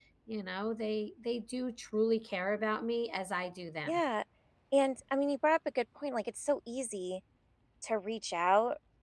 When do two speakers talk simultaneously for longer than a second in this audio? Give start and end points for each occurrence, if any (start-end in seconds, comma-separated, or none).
none